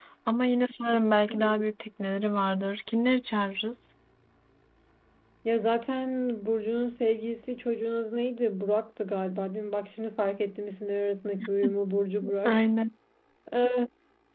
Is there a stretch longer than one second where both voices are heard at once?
No

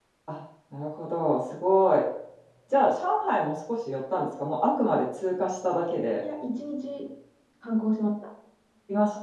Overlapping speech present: No

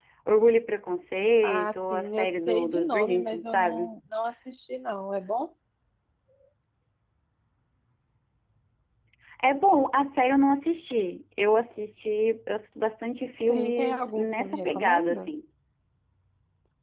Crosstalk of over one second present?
Yes, from 1.4 s

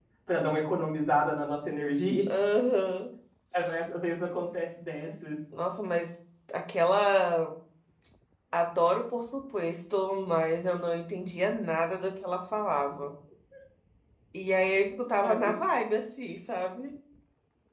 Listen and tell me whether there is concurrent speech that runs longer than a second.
No

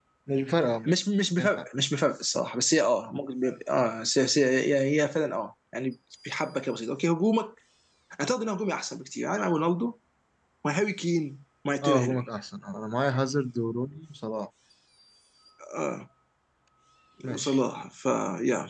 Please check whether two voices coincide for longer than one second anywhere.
No

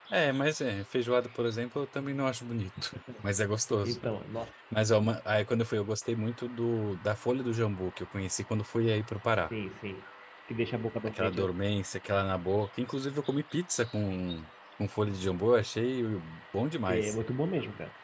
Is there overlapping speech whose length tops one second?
No

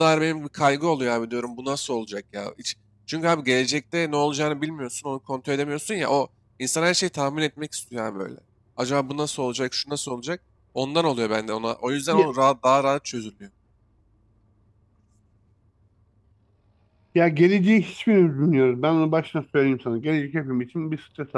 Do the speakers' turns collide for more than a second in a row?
No

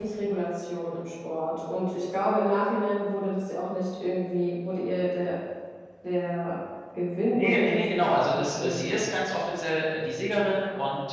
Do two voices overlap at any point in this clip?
Yes, from 7.3 s

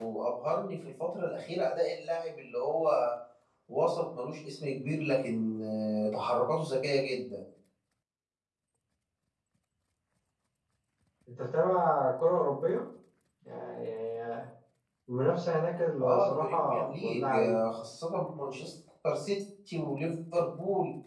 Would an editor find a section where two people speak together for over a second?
Yes, from 16.0 s

